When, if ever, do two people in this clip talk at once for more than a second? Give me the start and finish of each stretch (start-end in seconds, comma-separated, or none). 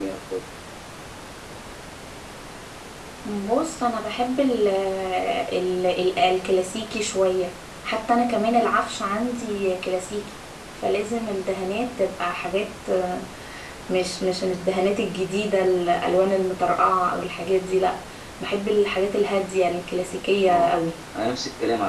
none